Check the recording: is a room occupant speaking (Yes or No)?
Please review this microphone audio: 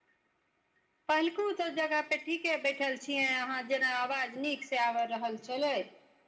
No